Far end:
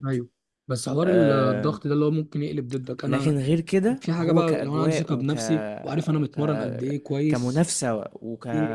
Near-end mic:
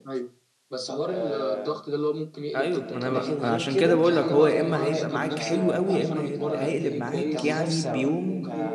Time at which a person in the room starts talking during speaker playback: 2.5 s

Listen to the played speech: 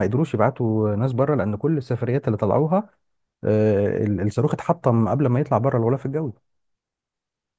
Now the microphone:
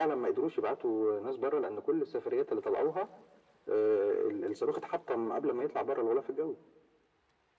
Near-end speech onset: none

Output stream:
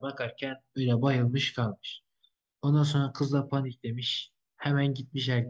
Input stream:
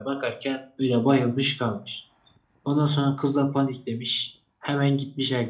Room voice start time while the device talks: none

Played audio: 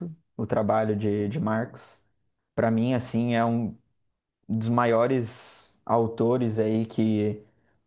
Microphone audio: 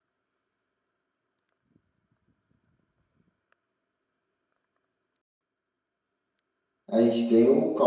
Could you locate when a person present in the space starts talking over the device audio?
6.9 s

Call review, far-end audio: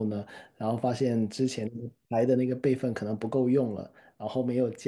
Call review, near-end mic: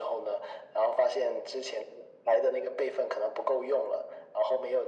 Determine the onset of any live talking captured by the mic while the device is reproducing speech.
none

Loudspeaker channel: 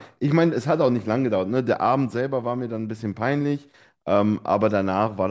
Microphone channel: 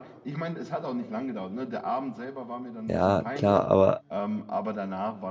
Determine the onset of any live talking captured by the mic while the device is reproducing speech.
2.8 s

